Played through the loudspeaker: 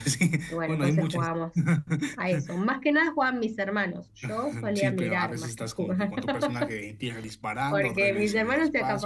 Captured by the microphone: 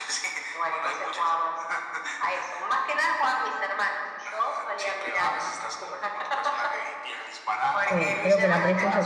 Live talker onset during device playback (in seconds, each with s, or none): 7.9 s